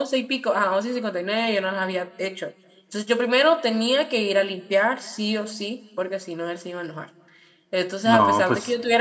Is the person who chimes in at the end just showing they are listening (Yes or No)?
Yes